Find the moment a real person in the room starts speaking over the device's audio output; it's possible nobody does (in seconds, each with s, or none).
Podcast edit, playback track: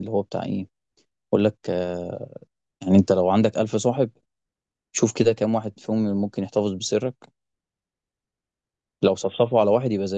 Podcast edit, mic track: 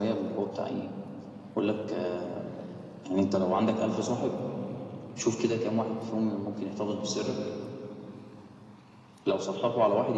none